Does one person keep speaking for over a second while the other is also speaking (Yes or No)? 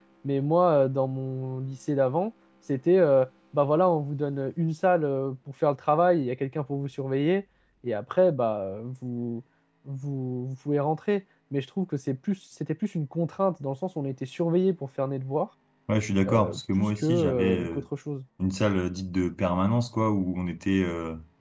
Yes